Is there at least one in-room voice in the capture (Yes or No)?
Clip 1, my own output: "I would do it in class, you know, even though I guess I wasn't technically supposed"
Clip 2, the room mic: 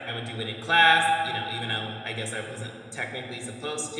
No